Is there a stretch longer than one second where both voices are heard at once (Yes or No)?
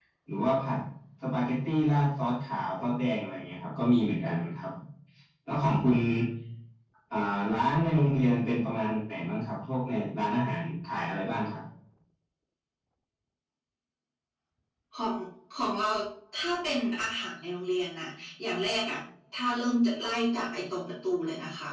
No